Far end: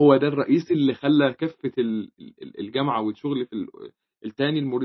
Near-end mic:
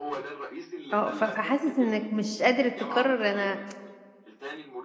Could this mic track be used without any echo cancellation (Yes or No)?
No